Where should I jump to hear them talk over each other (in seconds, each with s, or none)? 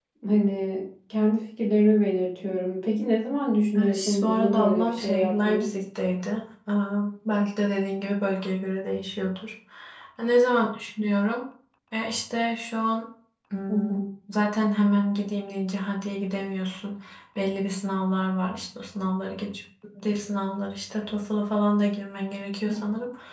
3.8 s